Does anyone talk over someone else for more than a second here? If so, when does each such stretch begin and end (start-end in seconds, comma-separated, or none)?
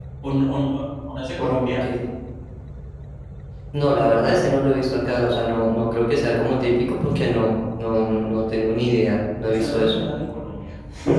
none